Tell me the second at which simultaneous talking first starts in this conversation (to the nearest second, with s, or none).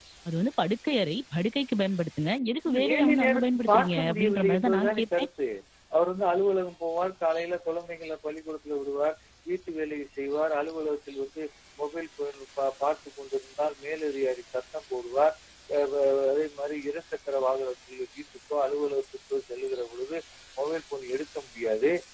3 s